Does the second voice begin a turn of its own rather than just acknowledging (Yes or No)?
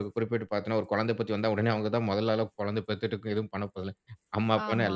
Yes